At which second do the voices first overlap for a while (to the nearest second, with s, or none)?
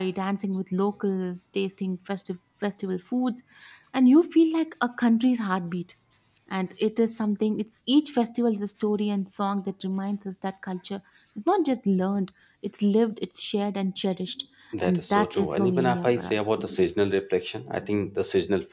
15 s